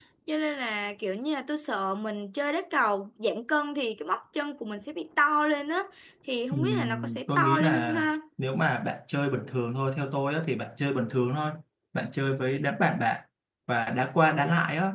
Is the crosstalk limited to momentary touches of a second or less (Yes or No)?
No